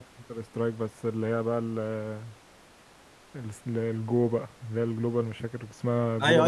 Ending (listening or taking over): taking over